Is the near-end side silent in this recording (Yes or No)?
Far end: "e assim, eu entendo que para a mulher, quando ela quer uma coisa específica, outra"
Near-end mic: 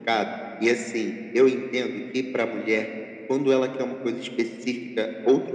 Yes